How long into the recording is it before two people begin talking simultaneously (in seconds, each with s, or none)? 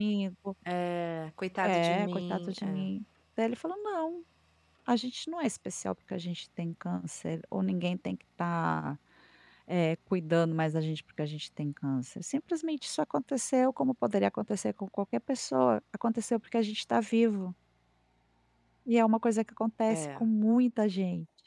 1.6 s